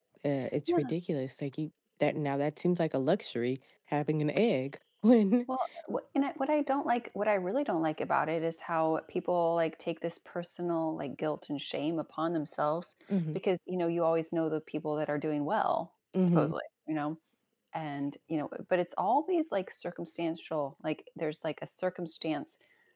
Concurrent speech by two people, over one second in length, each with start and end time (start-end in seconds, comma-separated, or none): none